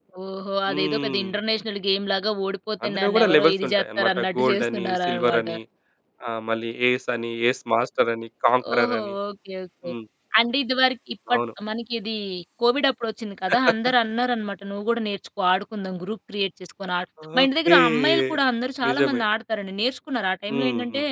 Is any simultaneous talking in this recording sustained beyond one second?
Yes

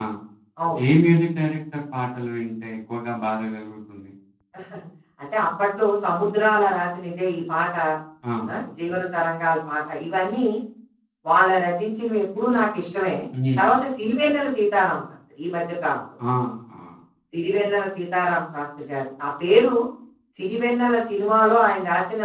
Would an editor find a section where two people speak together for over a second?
No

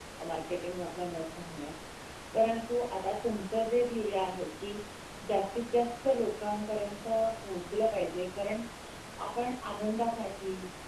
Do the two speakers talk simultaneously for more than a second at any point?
No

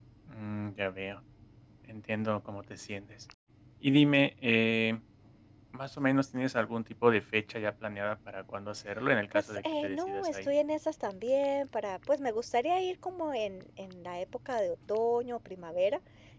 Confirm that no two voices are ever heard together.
No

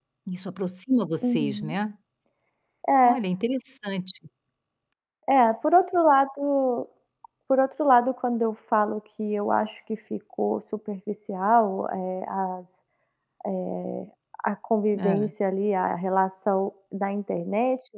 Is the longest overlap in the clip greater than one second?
No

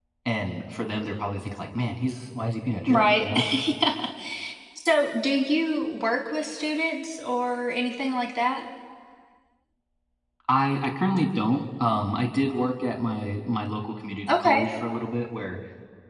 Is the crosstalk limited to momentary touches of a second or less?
Yes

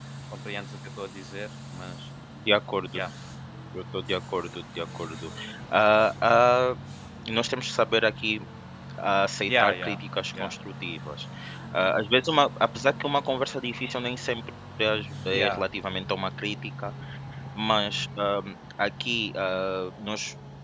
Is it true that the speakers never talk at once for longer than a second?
Yes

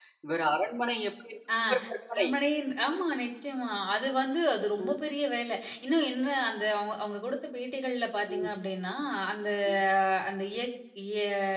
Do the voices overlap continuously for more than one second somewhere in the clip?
No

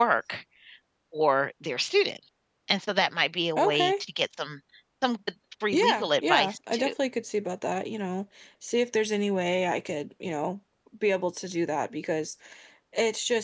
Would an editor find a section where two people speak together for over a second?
Yes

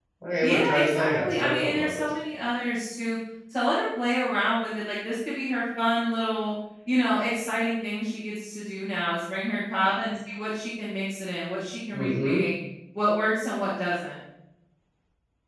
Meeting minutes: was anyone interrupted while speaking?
Yes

